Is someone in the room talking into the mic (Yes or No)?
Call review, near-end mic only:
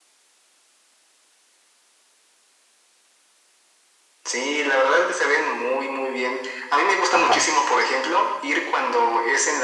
Yes